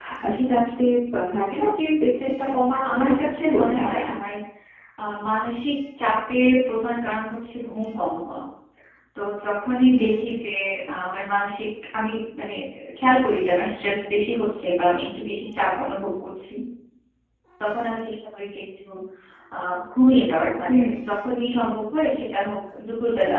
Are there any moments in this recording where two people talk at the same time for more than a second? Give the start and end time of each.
2.6-4.0

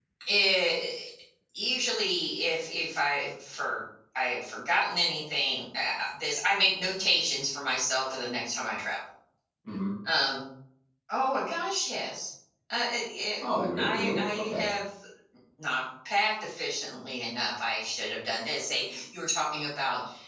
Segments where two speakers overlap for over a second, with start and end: 13.4-14.6

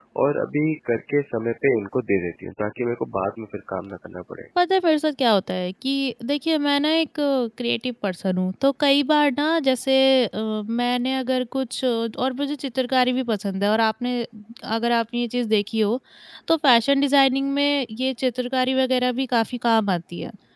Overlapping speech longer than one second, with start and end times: none

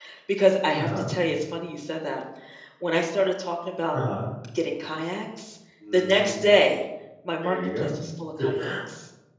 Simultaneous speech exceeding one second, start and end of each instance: none

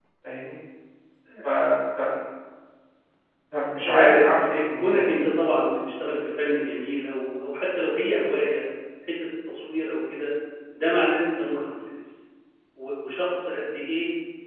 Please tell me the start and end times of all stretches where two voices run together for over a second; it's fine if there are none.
3.8-5.2

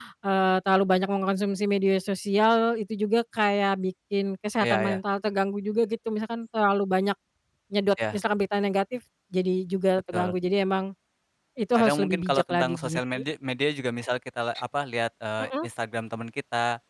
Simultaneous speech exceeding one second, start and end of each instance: 11.8-13.2

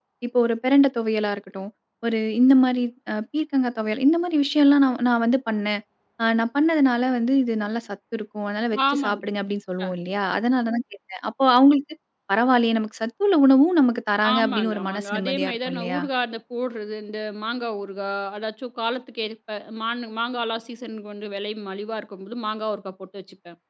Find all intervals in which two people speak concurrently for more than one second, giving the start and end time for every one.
14.3-16.0

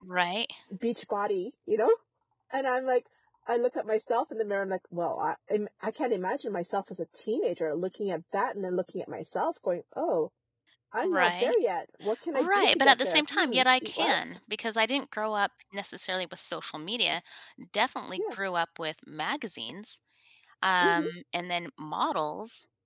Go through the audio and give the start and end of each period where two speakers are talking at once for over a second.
12.3-14.2

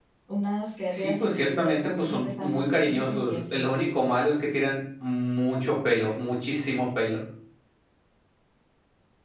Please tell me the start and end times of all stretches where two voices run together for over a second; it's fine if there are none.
0.9-3.6

